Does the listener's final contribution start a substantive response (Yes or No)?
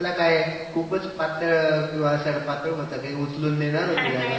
Yes